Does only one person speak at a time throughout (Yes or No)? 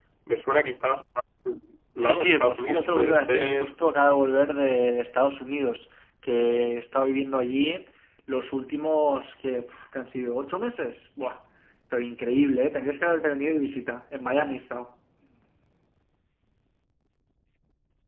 No